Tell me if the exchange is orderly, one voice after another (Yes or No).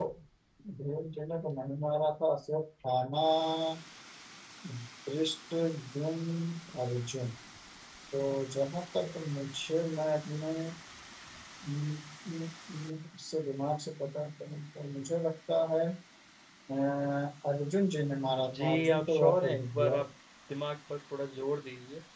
No